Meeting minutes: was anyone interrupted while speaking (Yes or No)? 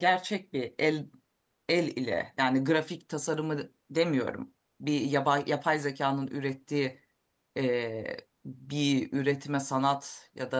No